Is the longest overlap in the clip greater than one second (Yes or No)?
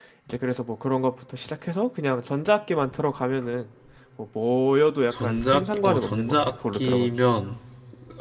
Yes